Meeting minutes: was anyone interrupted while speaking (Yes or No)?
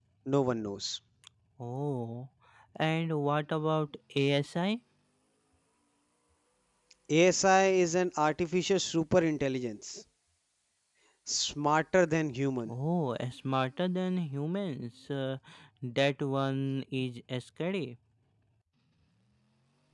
No